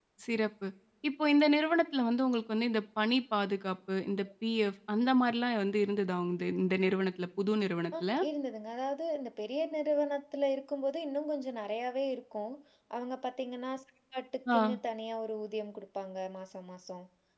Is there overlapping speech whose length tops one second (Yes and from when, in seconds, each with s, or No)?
No